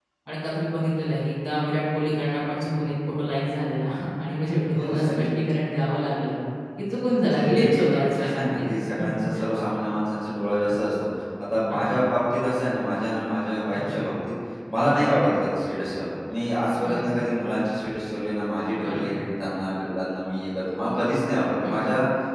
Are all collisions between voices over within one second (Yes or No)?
No